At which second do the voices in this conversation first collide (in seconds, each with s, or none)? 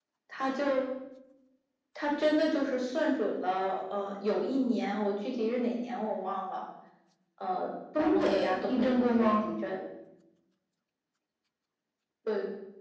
8.0 s